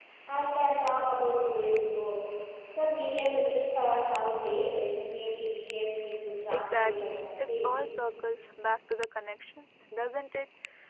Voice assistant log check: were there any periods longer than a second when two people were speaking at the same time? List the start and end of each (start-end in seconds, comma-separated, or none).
6.5-7.9